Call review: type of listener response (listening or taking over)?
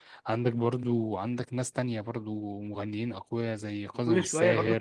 taking over